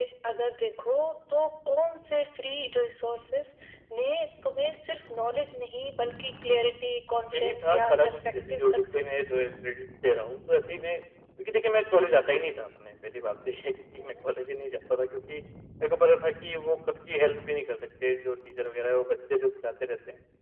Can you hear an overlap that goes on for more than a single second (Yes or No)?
Yes